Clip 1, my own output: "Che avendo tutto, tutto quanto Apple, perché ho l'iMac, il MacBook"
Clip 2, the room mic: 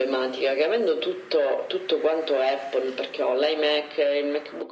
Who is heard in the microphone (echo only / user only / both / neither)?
echo only